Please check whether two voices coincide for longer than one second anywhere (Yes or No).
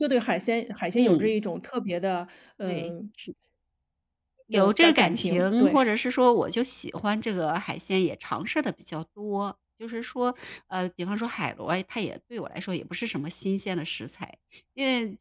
Yes